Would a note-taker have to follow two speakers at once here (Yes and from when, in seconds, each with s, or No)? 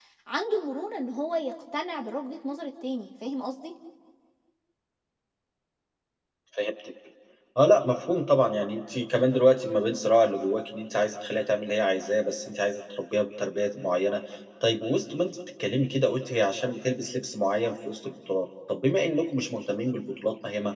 No